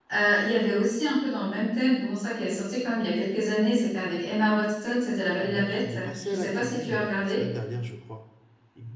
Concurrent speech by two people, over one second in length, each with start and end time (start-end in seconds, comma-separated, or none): 5.4-7.4